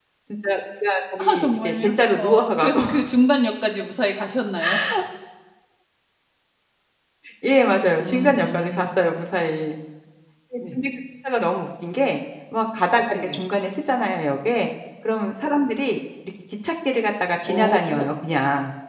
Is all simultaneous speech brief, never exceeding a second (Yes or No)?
No